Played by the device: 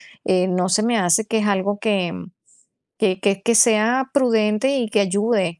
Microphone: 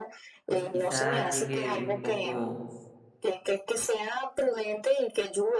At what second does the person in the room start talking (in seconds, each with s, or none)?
0.4 s